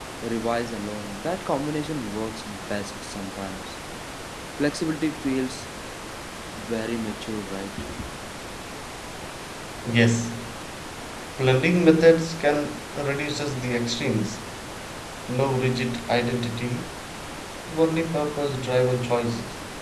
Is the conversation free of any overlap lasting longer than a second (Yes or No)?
Yes